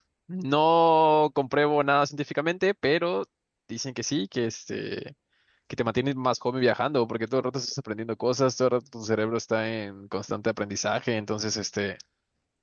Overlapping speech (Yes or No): No